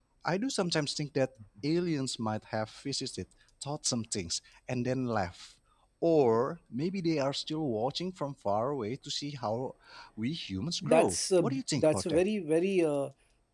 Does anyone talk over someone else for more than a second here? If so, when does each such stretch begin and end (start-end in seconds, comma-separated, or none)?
10.8-12.2